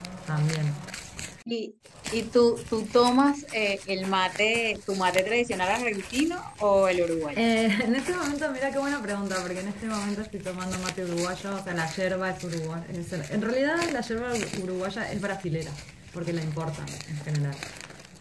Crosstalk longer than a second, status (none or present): none